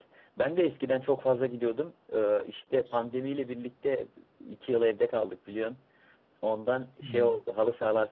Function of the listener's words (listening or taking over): listening